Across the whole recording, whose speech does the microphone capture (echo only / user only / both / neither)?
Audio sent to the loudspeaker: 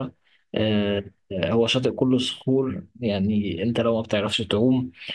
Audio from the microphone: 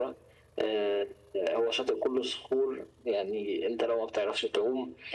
echo only